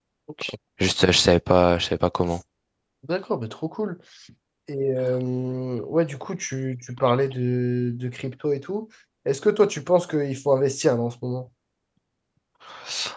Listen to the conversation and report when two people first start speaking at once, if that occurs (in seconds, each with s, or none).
none